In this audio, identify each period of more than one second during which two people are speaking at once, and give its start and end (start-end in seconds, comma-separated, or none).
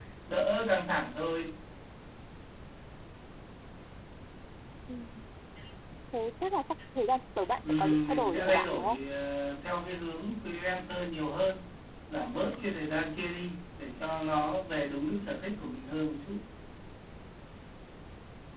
7.7-9.0